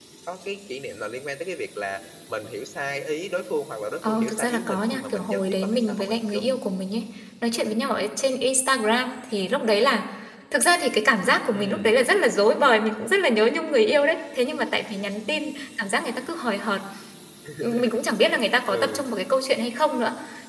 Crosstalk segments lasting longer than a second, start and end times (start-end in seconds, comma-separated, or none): 4.1-6.4